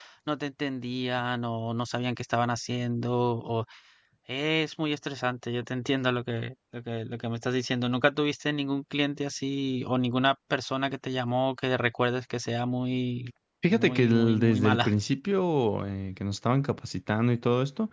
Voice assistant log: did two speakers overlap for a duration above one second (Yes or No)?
Yes